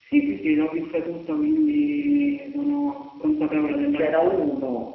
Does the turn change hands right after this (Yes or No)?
Yes